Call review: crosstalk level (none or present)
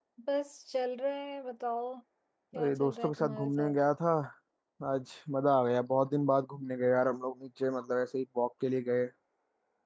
present